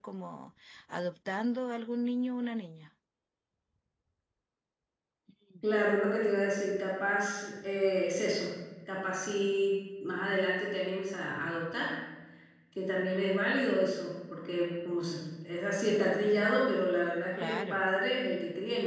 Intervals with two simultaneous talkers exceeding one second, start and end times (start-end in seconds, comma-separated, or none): none